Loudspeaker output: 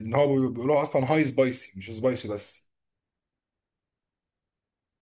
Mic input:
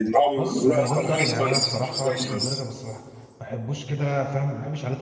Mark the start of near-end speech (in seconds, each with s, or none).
0.4 s